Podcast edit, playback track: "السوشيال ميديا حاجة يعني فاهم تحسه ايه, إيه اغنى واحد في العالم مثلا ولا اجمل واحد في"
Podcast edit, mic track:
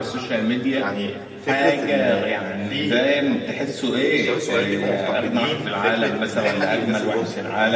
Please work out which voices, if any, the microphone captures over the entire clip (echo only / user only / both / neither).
both